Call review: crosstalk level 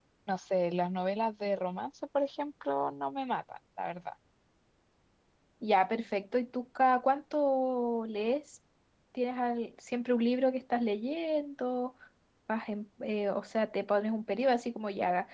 none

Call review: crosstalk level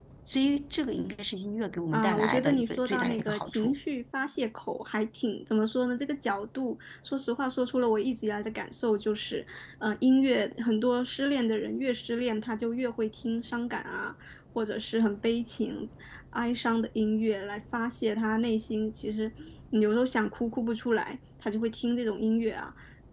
present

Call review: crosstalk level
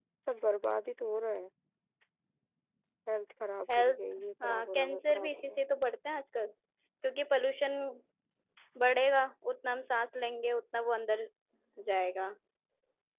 present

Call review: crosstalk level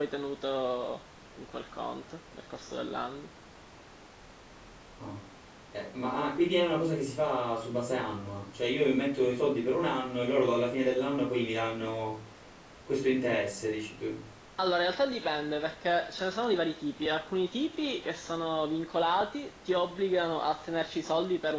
none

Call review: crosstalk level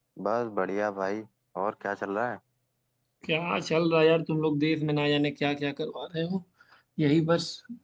none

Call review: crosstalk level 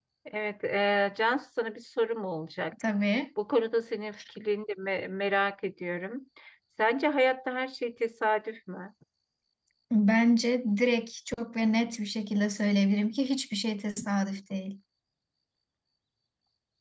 none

